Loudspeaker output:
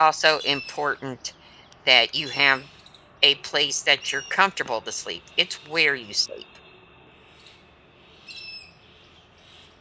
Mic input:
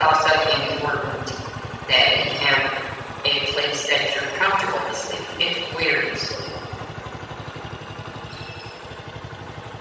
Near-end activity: none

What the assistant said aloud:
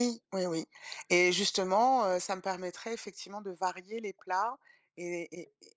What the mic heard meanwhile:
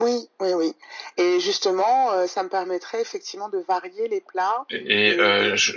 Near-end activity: present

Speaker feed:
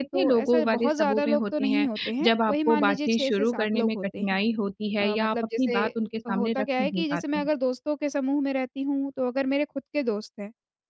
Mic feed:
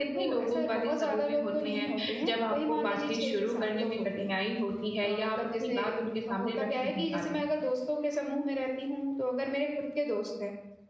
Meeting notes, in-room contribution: none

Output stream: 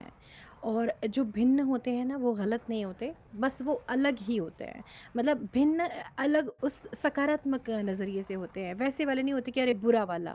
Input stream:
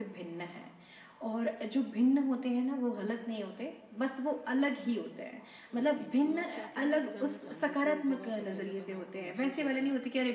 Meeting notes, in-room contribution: present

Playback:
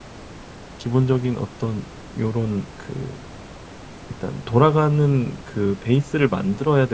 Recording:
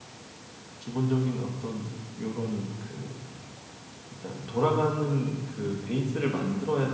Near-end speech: none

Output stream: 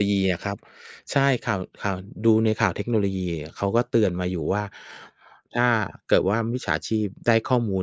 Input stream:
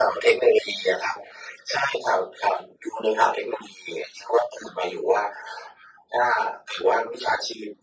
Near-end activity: none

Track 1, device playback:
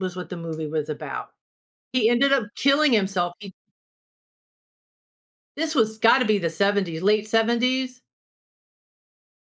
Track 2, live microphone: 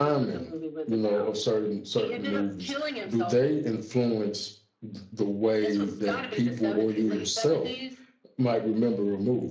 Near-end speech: present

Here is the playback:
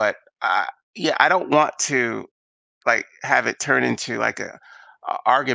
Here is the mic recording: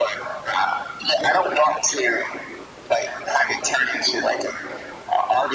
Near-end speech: none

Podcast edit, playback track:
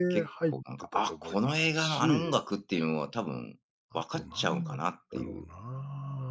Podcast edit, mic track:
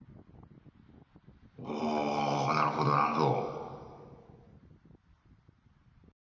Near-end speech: present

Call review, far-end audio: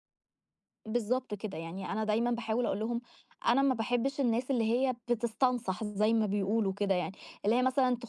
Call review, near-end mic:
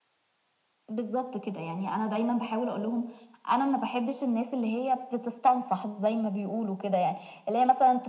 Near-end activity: none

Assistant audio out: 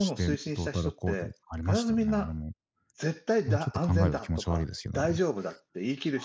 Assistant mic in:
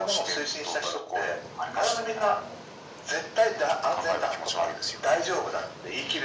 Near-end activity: none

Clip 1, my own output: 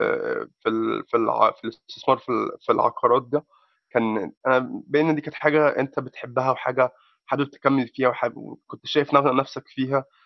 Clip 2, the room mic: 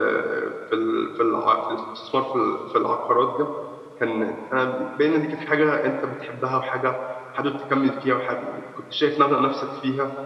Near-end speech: none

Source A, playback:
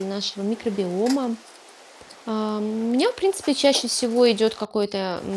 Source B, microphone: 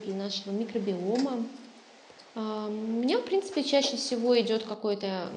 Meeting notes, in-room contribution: none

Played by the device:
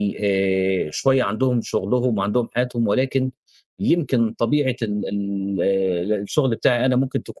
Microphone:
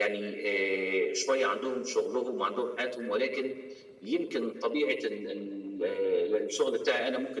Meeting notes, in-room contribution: none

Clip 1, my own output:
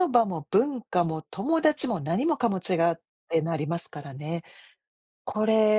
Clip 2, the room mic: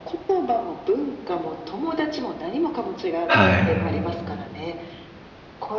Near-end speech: present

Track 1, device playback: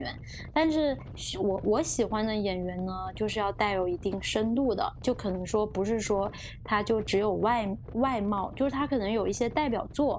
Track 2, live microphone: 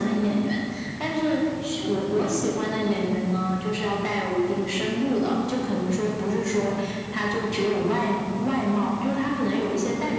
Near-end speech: none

